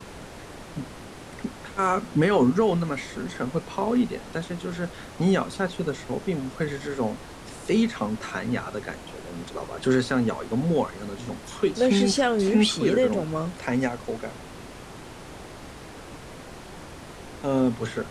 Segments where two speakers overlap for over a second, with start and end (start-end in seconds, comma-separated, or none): 11.8-13.3